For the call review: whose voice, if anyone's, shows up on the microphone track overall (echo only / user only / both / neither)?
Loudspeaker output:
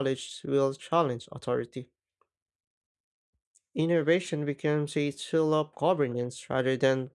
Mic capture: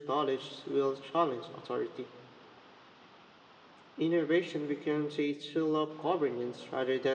echo only